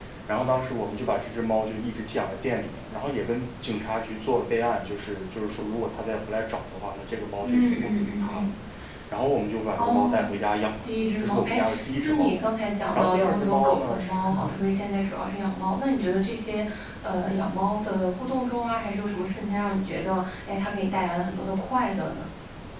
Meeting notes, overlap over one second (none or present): present